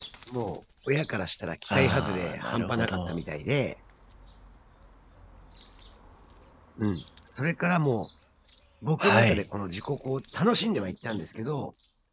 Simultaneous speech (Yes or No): Yes